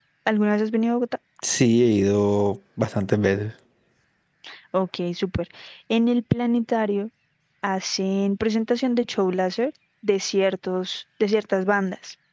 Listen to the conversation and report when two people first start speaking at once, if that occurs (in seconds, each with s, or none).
none